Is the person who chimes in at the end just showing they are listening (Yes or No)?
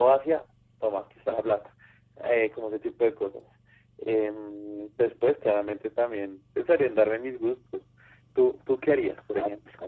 No